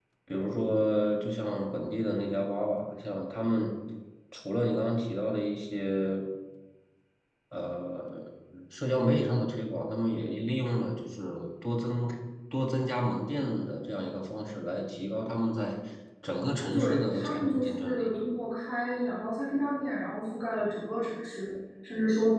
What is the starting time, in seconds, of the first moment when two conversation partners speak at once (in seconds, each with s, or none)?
16.7 s